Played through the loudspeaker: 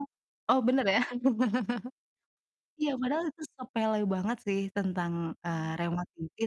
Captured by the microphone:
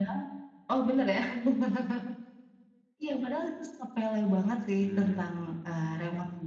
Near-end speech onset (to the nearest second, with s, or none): 5 s